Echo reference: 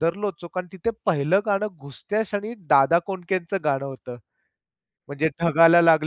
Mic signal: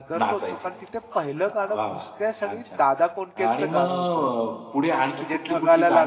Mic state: both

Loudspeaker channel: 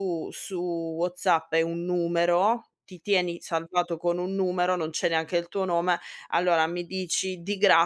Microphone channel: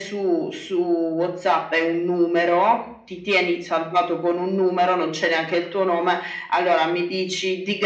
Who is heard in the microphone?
echo only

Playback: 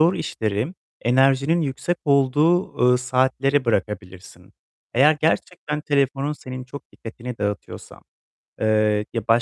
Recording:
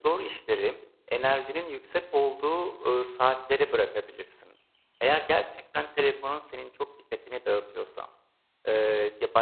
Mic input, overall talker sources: echo only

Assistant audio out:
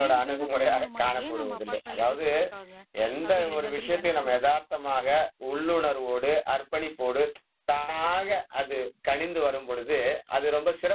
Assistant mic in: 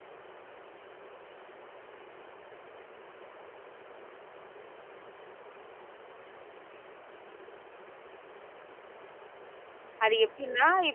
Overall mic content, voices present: user only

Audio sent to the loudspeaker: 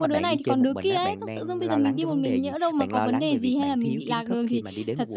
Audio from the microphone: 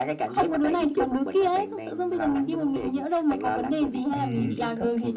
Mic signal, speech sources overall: both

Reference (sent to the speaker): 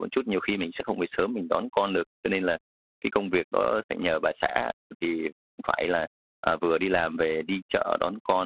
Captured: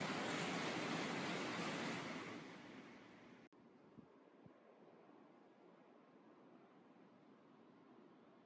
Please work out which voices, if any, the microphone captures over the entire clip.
neither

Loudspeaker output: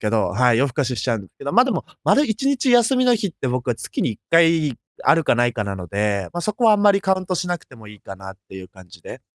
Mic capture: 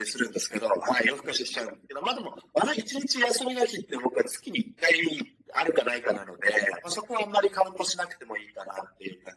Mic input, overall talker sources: echo only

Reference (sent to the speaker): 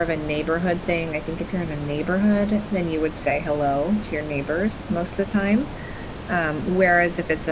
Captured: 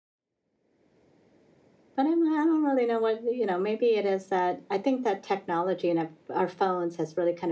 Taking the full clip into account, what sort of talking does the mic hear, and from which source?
user only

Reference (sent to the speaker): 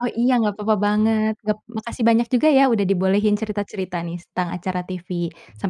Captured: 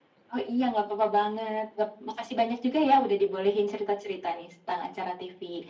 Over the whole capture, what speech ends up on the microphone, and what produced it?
echo only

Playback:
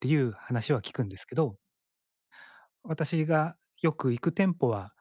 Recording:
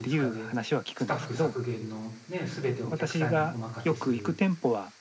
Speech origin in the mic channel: both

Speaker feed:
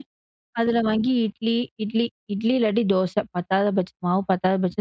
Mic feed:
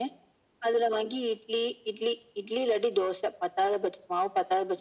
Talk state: echo only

